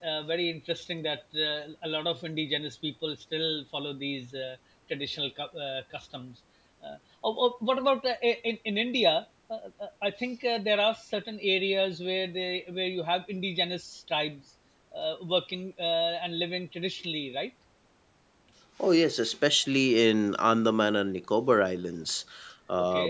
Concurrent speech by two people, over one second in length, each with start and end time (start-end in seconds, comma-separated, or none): none